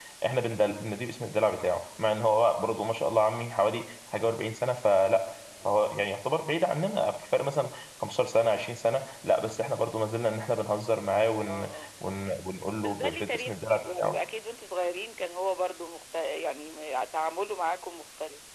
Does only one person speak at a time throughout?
No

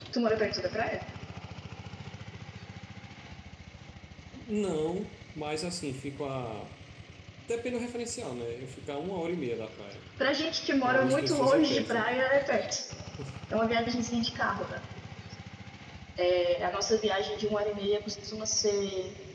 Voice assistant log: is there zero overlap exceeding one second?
No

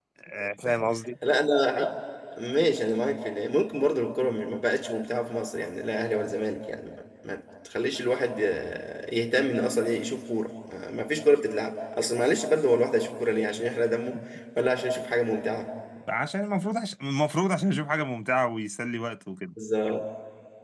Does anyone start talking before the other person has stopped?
No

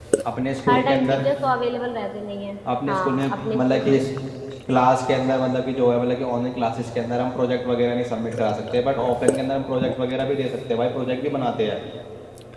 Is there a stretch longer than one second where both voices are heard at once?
Yes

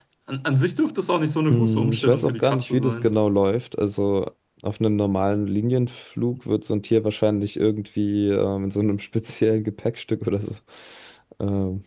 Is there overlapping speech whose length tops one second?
Yes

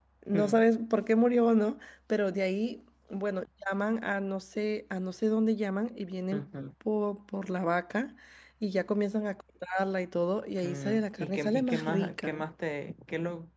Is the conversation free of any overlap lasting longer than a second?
No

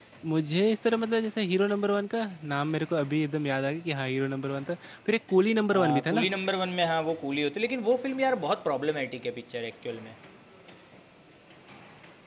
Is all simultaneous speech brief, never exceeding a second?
Yes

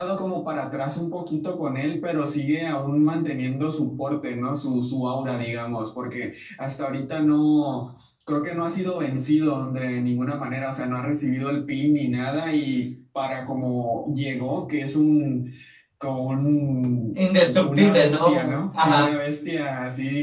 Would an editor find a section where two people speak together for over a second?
Yes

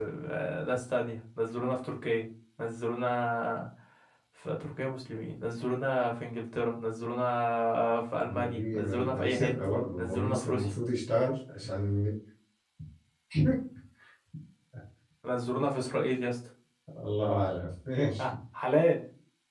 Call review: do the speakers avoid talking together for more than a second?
No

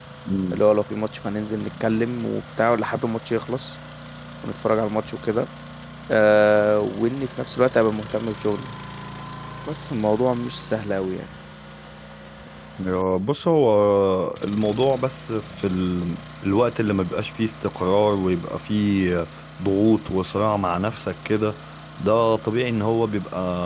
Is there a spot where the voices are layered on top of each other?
No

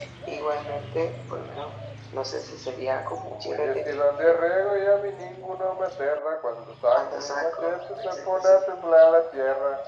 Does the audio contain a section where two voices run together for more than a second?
Yes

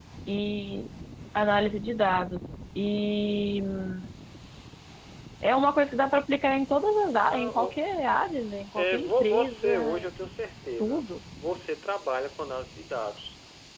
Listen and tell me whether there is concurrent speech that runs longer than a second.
Yes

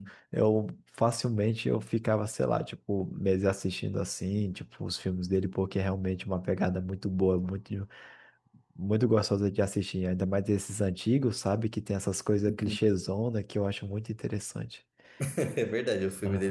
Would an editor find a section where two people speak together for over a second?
No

